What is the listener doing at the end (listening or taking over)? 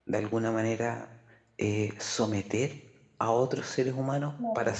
listening